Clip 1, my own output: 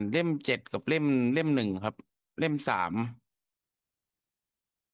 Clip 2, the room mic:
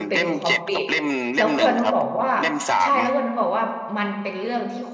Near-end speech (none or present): present